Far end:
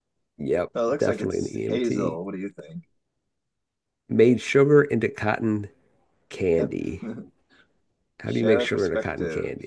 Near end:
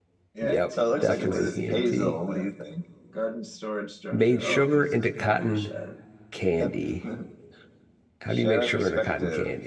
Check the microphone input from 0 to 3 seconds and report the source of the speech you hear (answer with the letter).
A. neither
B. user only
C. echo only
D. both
D